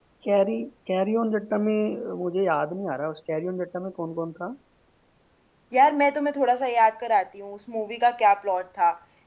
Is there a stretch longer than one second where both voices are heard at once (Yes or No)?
No